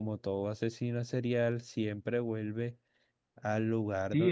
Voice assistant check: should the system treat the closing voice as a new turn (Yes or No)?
Yes